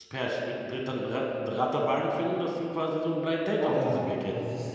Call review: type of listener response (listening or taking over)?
taking over